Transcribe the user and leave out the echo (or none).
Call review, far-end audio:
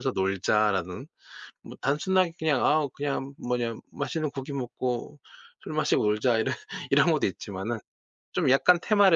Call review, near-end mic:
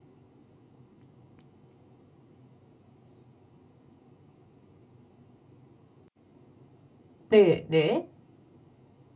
네 네.